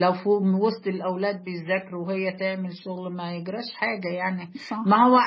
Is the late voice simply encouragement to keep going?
Yes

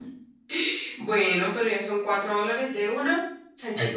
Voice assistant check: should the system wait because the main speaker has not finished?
No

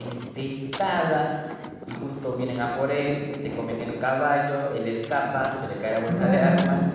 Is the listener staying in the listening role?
Yes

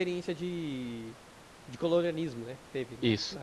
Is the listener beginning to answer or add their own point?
Yes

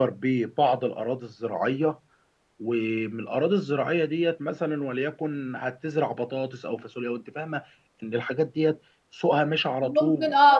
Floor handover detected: Yes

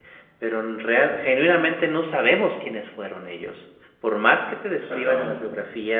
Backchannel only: Yes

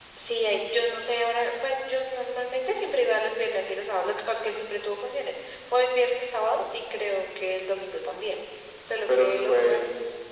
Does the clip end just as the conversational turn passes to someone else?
Yes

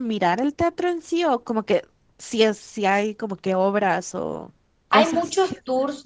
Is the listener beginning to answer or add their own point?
Yes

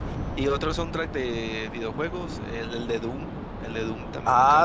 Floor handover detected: Yes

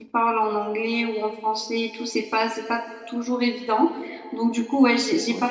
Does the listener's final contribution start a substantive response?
No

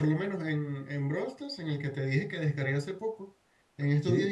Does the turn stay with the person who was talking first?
Yes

